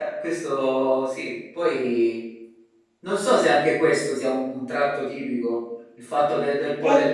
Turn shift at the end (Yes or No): No